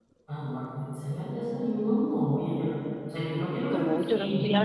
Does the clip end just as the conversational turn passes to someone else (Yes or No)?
Yes